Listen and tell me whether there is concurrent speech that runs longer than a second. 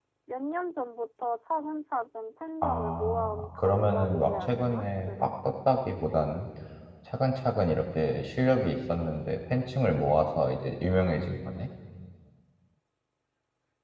Yes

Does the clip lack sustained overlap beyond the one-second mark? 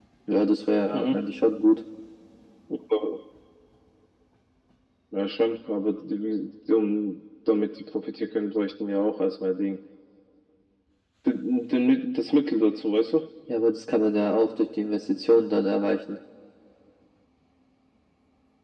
Yes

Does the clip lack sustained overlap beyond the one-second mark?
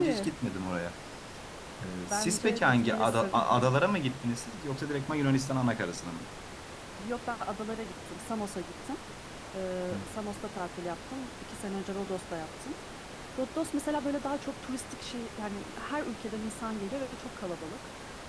No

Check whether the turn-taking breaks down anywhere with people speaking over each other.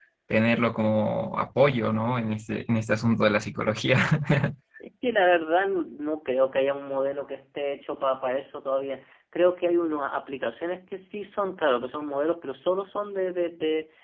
No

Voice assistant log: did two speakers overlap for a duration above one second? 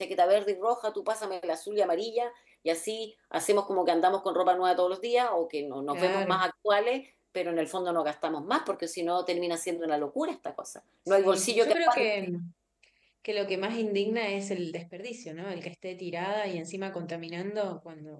Yes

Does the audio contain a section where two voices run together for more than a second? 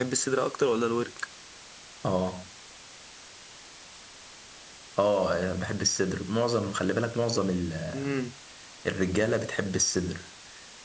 No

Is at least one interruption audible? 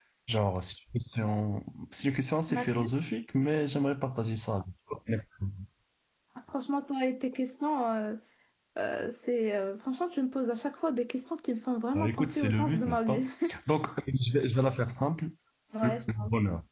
Yes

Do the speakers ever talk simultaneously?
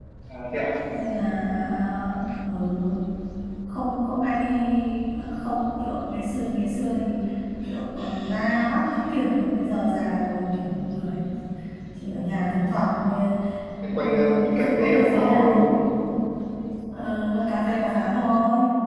Yes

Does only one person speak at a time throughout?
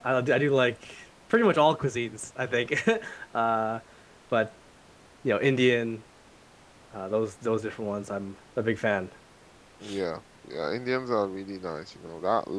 Yes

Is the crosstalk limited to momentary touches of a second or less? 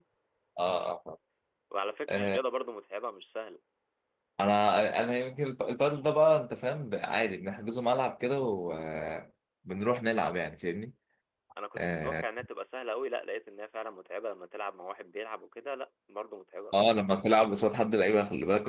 Yes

